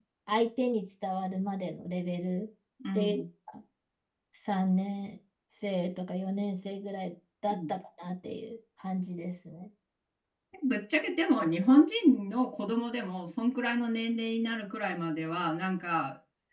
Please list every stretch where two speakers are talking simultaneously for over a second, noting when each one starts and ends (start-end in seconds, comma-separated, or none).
none